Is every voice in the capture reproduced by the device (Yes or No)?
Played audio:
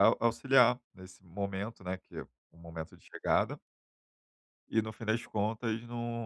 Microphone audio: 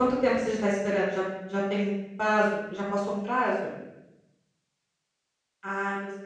No